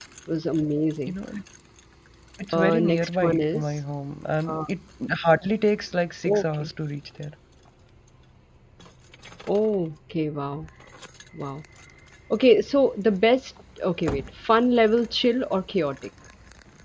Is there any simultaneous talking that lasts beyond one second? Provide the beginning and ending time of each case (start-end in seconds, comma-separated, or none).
2.5-3.8